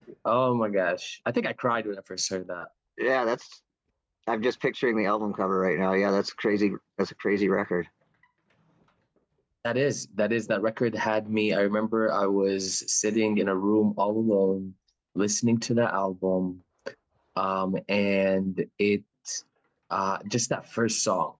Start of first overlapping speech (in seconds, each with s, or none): none